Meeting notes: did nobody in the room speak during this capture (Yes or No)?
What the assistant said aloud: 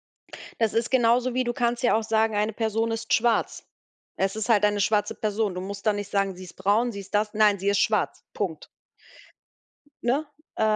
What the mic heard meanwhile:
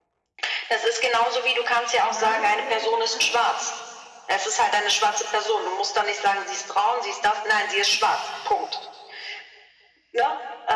No